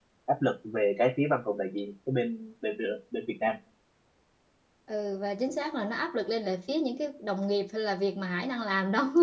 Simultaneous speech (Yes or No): No